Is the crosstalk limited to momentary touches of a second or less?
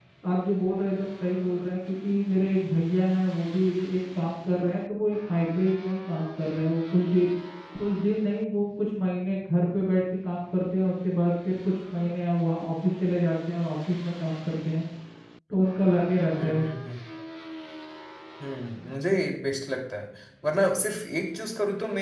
Yes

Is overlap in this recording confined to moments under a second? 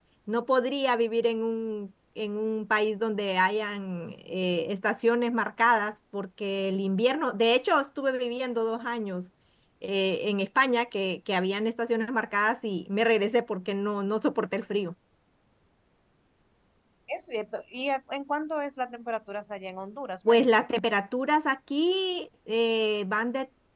Yes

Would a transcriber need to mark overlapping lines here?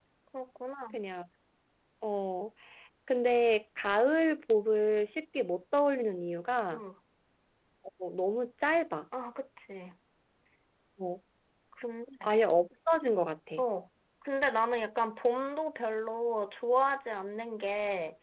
No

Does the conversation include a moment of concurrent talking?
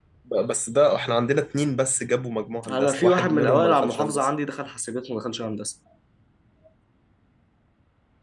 Yes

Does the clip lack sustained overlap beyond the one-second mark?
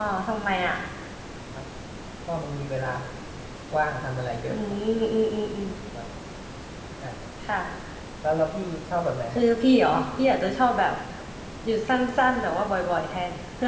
Yes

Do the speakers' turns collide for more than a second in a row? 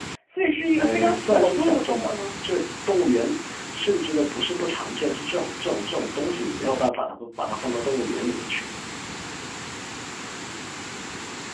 Yes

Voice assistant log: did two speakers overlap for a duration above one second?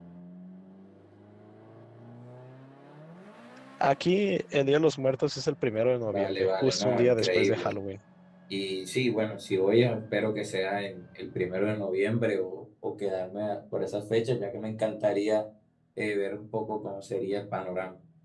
Yes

